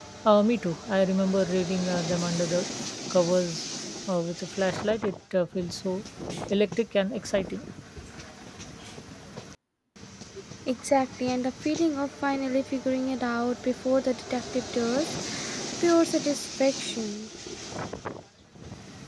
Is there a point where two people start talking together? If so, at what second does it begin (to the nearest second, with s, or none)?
none